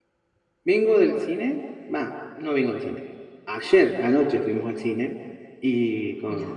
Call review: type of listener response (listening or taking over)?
listening